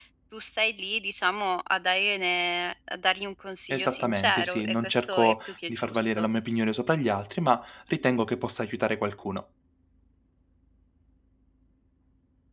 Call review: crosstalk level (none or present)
present